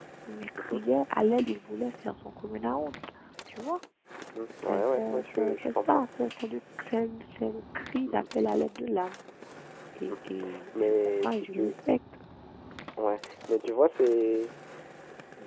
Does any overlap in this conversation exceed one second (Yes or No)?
Yes